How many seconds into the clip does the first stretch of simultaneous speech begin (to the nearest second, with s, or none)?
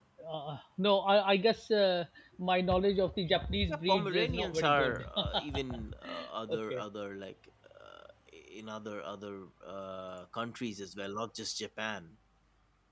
4 s